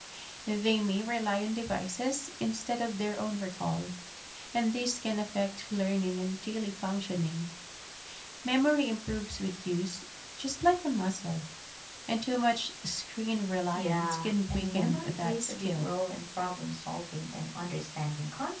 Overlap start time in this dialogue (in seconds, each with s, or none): 13.7 s